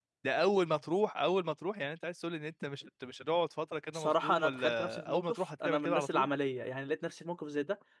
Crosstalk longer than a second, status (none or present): present